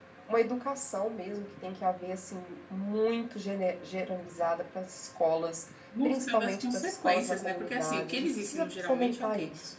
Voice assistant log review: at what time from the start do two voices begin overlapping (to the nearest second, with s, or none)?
6 s